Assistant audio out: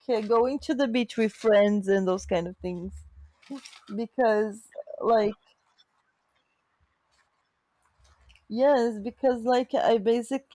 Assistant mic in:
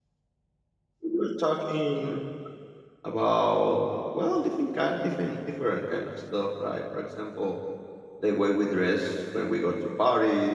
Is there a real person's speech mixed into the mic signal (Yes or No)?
Yes